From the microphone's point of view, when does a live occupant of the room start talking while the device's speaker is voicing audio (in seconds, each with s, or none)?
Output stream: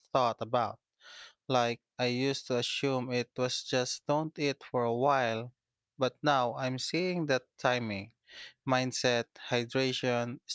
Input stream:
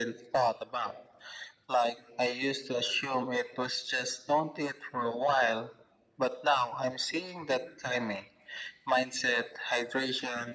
none